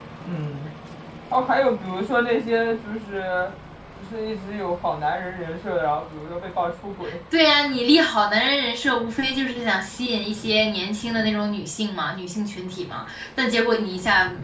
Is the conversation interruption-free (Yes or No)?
Yes